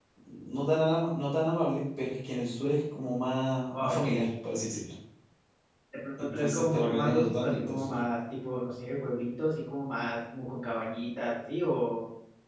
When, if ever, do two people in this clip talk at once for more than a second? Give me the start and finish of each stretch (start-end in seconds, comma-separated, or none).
6.2-8.0